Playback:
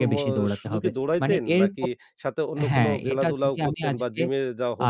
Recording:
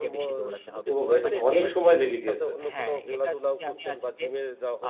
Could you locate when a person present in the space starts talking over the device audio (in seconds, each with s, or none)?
0.9 s